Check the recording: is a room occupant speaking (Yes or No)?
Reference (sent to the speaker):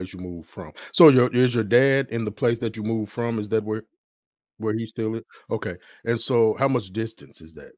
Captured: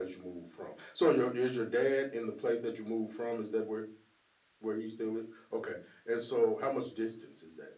No